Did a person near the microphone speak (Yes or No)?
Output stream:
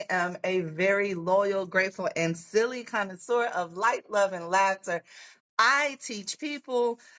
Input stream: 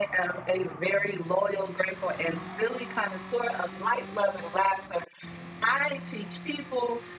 No